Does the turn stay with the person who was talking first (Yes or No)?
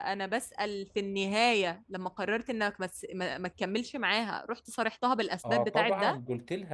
No